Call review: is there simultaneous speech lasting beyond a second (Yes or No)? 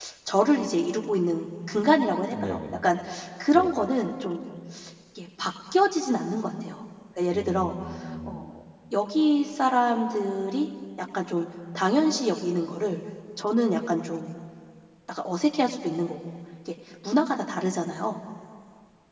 No